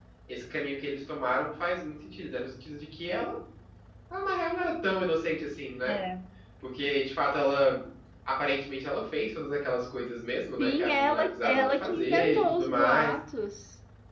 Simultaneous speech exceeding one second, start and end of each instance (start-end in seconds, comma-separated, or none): 10.6-13.2